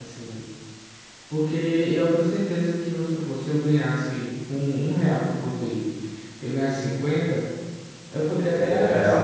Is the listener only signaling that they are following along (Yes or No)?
Yes